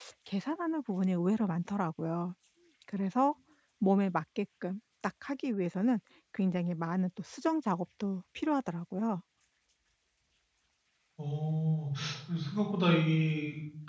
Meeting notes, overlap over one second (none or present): none